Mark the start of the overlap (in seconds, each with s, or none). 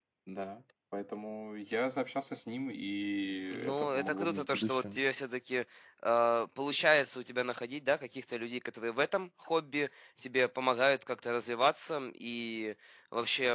3.5 s